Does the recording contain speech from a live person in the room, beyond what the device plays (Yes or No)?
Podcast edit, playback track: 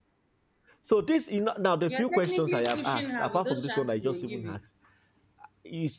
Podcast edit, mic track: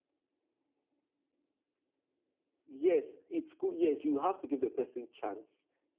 Yes